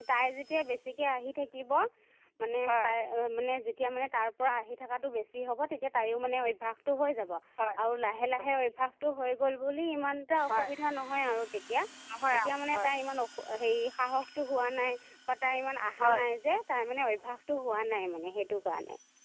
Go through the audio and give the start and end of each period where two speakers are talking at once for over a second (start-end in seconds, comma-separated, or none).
none